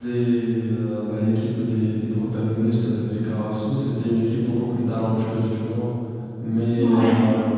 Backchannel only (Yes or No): Yes